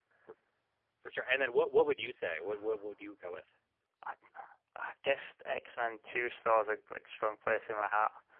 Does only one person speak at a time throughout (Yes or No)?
Yes